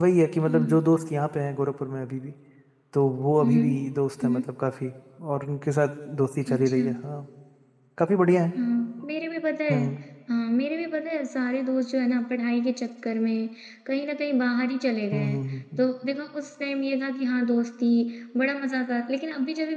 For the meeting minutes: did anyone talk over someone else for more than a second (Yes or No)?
No